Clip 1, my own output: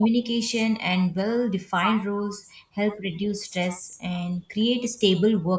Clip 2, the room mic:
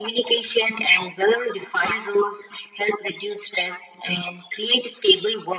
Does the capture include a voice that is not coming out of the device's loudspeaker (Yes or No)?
No